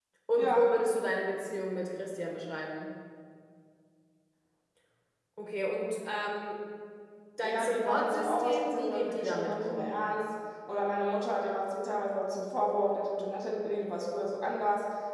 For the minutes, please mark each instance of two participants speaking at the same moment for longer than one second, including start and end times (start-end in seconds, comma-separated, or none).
7.4-10.0